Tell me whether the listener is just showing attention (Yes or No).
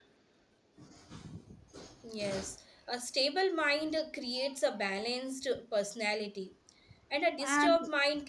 Yes